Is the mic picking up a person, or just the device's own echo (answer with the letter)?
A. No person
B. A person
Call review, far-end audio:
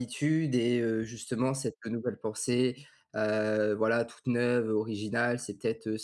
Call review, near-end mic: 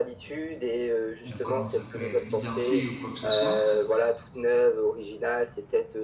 B